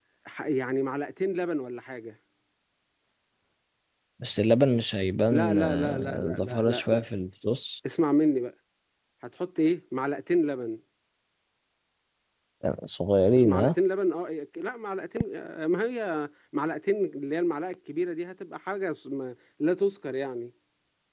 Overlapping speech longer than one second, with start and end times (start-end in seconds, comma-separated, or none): 5.3-7.0